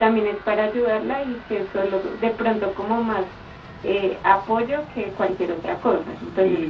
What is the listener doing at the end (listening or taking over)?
taking over